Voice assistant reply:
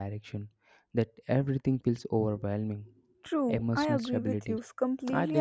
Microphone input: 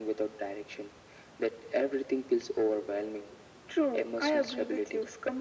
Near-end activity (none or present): none